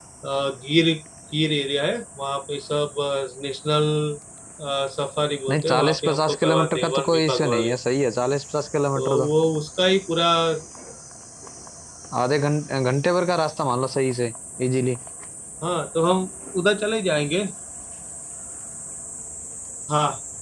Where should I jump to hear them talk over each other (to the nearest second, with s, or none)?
6 s